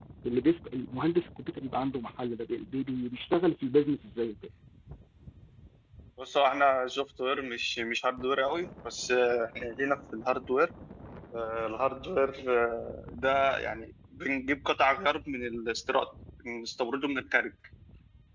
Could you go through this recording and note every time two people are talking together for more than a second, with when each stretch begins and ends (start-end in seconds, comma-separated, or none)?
none